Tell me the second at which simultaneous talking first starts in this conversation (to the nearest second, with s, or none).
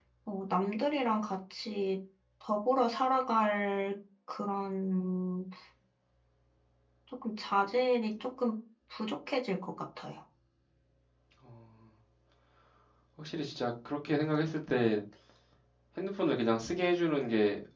none